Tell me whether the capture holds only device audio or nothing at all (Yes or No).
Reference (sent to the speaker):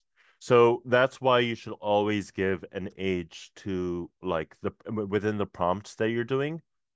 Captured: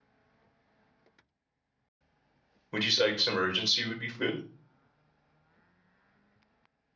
No